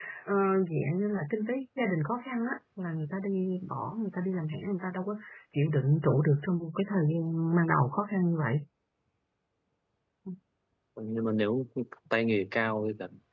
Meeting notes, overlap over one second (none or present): none